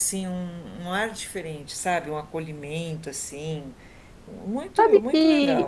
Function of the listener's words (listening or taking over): taking over